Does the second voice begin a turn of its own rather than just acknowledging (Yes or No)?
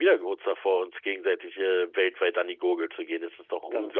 Yes